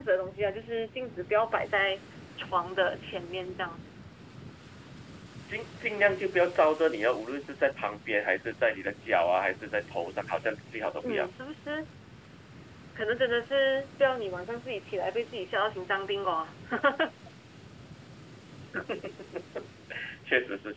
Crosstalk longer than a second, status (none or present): none